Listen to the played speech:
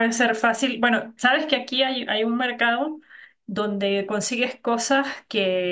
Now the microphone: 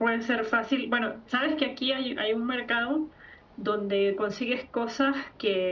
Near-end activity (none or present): none